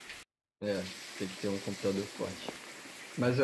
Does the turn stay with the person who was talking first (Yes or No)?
Yes